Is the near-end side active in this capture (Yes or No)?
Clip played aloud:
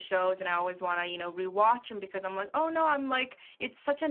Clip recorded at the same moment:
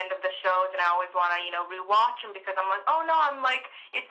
No